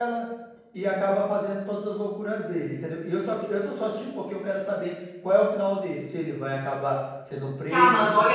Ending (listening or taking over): taking over